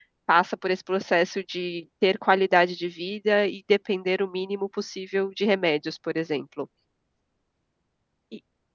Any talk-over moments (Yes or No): No